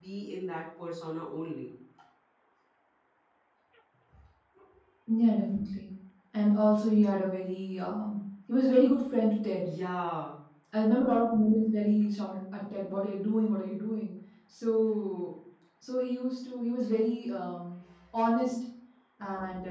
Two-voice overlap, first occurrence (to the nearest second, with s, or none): none